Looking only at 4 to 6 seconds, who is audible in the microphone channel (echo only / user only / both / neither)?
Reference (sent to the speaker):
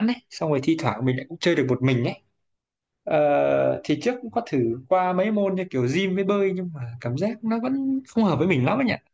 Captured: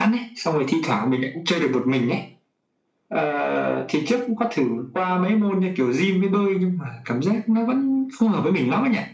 echo only